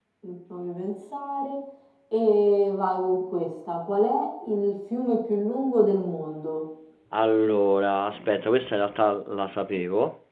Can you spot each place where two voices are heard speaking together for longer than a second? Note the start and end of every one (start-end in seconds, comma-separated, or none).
none